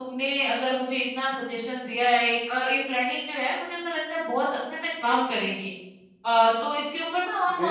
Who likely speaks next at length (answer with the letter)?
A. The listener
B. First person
B